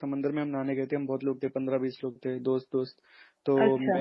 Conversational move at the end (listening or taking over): listening